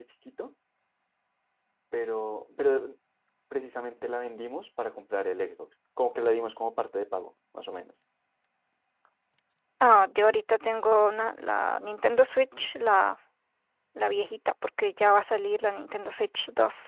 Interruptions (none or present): none